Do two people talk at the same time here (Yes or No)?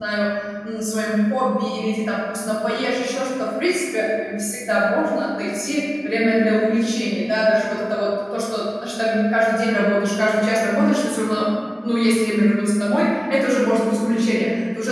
No